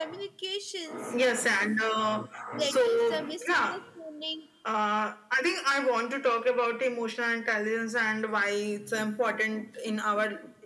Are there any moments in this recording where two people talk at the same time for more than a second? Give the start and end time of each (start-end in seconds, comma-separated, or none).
2.6-3.8